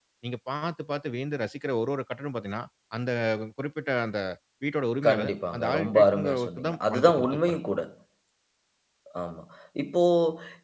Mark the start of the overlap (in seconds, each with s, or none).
5.1 s